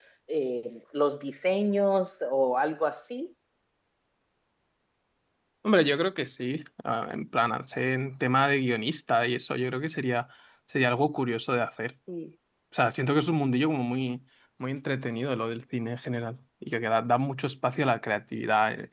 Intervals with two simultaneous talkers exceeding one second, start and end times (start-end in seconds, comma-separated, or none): none